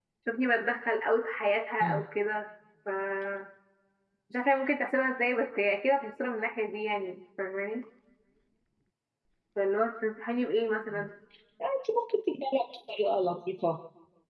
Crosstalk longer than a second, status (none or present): none